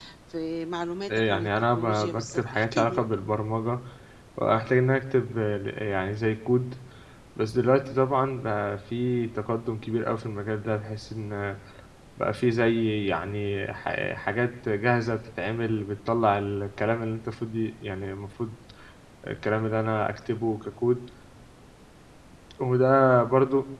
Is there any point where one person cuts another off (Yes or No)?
Yes